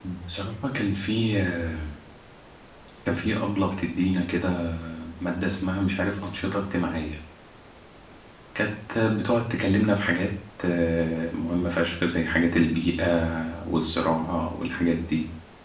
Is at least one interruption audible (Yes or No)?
No